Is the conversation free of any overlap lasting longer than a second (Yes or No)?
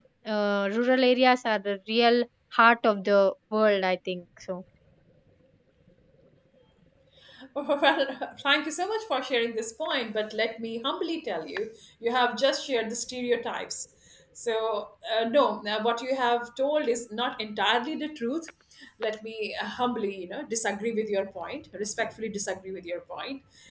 Yes